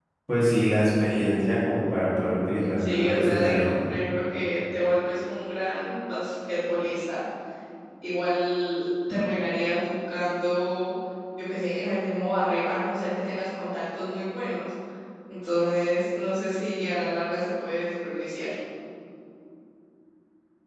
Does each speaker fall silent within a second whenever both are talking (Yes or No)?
No